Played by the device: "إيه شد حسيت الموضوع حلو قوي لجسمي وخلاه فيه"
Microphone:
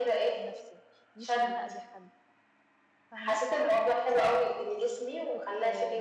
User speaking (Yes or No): Yes